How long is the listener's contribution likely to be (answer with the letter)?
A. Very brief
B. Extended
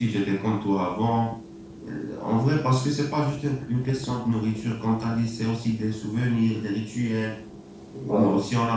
A